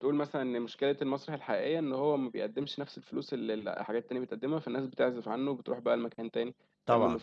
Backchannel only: No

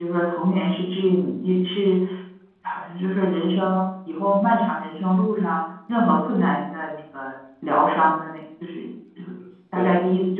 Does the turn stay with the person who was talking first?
Yes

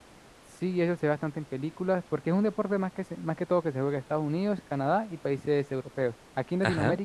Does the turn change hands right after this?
No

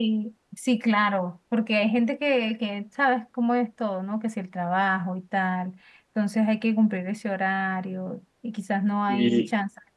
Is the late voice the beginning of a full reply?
No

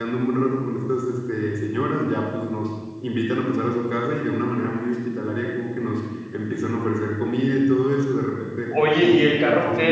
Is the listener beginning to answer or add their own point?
Yes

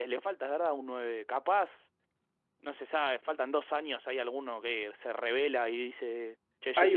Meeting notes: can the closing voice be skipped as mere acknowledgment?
No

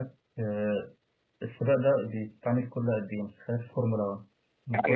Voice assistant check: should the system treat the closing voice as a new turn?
Yes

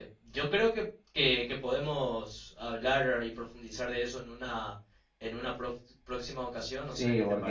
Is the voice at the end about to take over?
Yes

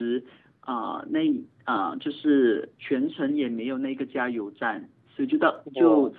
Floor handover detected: No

